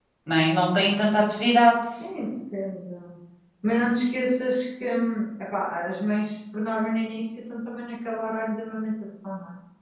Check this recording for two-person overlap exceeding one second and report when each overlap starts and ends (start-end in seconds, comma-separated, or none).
none